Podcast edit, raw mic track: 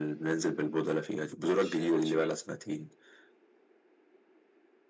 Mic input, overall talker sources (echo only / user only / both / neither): both